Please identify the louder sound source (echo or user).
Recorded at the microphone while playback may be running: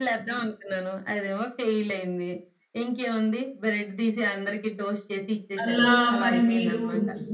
user